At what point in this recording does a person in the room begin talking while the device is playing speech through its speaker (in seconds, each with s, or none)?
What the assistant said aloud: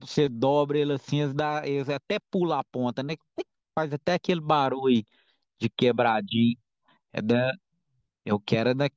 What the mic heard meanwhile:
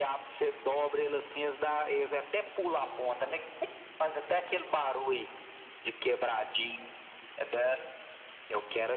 none